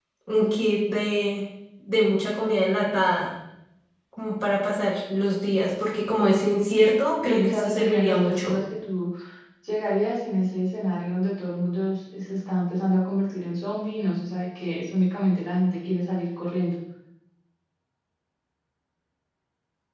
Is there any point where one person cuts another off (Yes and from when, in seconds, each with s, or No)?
Yes, from 7.2 s